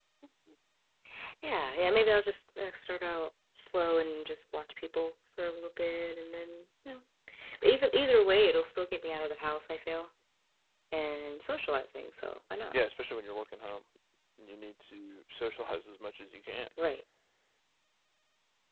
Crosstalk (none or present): none